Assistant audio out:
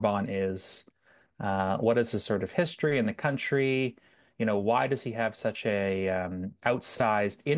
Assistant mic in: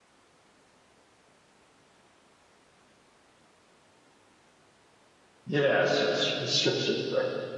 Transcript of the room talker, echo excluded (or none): Yeah, sure, sure, sure, sure, sure.